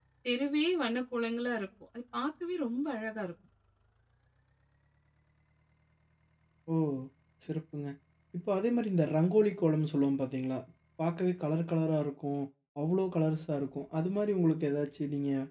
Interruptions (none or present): none